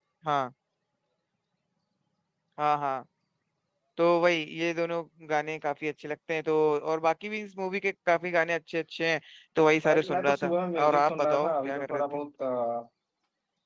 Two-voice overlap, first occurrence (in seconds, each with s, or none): 9.8 s